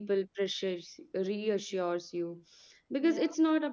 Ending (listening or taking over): listening